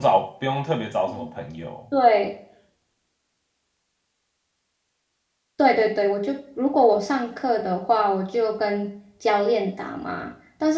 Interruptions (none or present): none